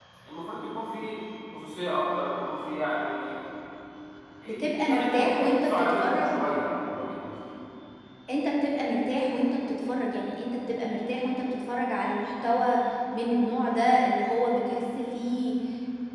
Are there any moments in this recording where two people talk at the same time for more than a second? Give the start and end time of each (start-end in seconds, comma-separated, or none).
4.6-6.3